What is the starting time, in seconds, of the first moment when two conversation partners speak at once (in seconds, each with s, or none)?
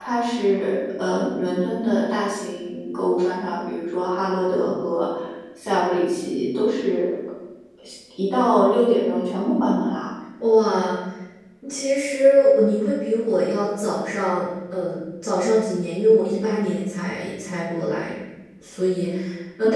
none